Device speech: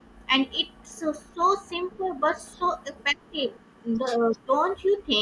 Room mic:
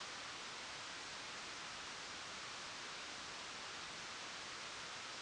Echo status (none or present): none